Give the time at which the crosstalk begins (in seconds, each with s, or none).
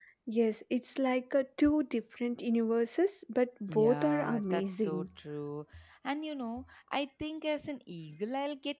3.7 s